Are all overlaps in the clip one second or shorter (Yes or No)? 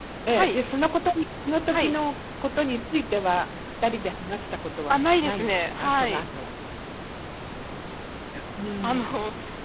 No